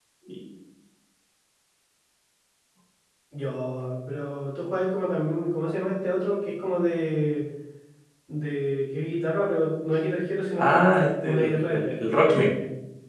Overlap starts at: 10.6 s

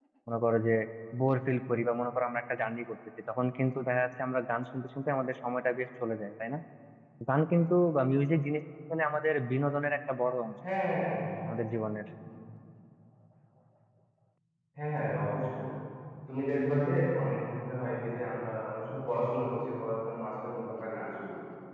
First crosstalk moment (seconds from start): none

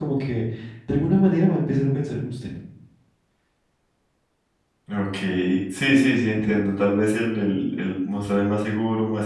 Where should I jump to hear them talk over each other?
none

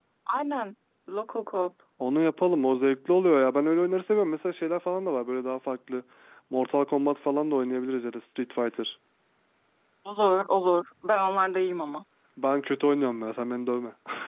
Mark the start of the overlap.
none

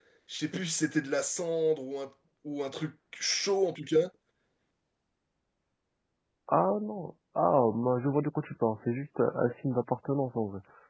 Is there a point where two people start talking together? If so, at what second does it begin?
none

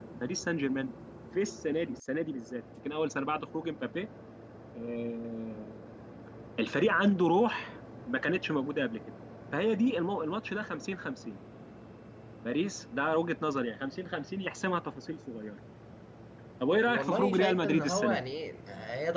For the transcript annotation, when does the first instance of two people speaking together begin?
16.9 s

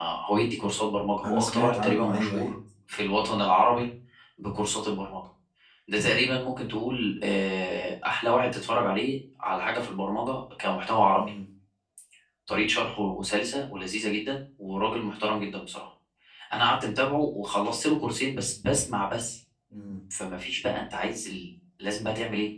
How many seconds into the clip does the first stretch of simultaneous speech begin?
1.2 s

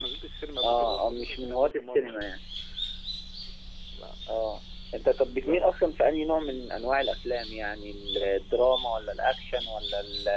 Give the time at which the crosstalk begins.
0.6 s

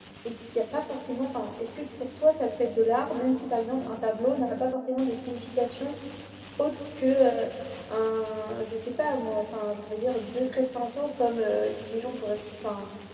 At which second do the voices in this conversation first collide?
none

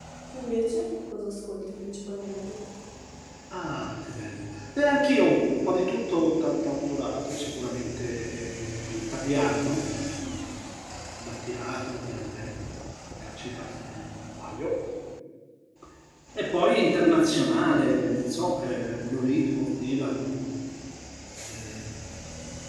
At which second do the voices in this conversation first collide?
none

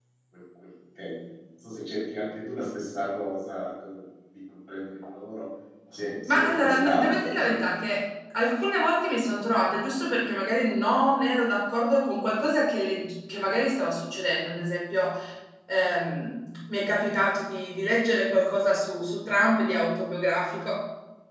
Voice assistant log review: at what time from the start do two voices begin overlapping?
6.3 s

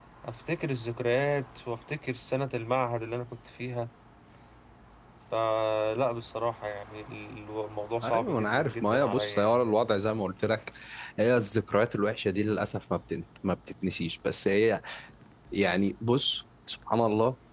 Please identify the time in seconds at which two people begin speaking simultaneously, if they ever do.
8.0 s

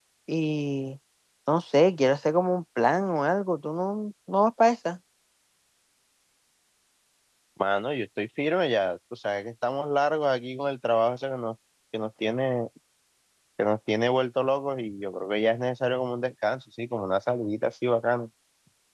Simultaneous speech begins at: none

